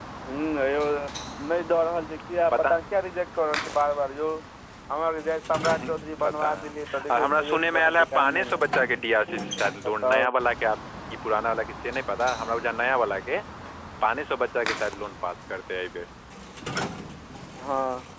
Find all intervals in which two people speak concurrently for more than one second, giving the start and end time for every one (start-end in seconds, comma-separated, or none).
6.2-8.6